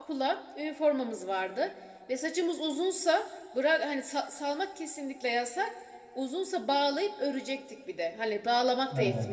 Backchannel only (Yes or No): Yes